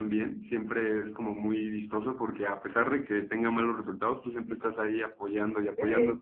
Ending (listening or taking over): listening